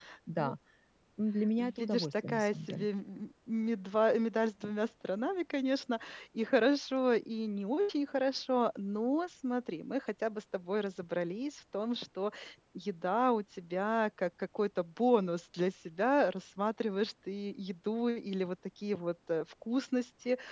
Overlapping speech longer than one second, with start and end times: 1.6-2.9

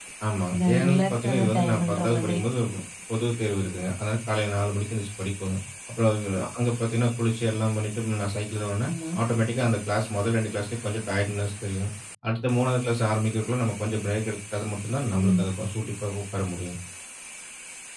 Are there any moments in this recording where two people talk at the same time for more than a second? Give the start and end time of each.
0.5-2.4

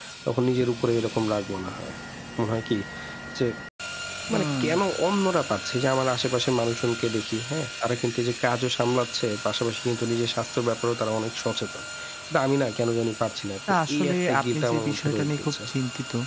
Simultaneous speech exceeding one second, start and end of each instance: 13.9-15.5

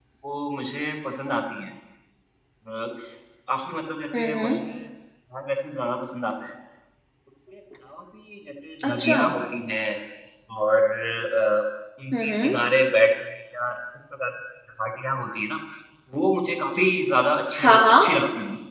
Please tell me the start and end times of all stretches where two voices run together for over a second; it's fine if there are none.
none

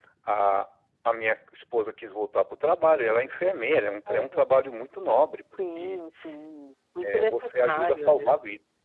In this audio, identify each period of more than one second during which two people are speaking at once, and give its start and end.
7.0-8.3

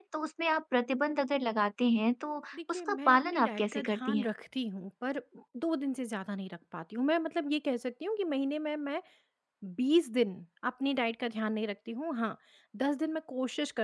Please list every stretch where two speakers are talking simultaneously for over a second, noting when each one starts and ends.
2.7-4.2

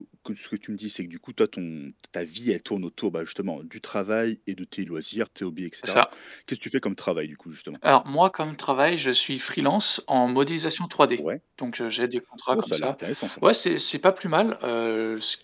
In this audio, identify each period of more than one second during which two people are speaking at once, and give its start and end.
none

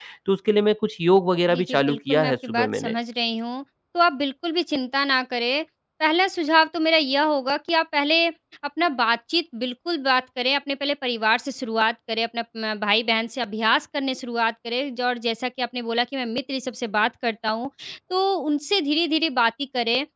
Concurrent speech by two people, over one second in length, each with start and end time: 1.5-2.9

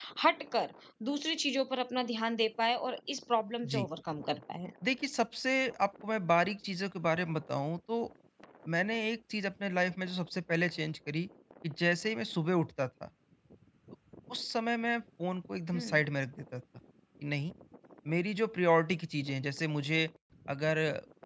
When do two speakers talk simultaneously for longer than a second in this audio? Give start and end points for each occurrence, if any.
none

